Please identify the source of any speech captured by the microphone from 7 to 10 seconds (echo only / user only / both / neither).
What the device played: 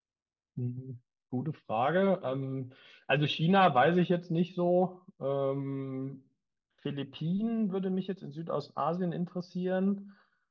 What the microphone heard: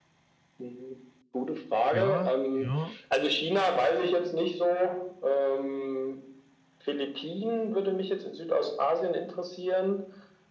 echo only